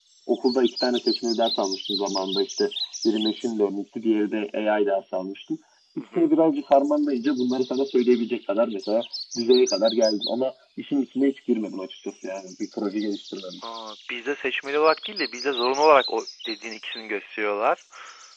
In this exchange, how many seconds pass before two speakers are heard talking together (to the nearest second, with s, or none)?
none